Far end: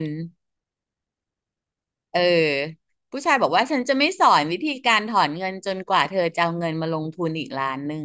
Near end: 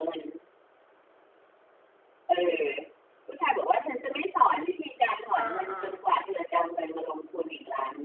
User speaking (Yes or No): Yes